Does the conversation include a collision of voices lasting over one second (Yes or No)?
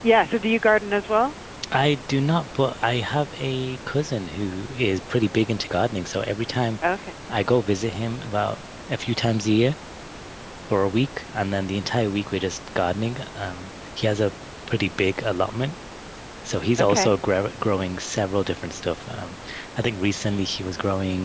No